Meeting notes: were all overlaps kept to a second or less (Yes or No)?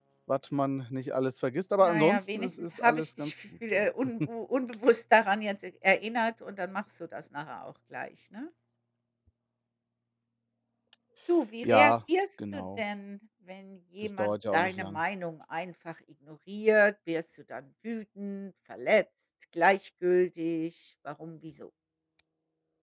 No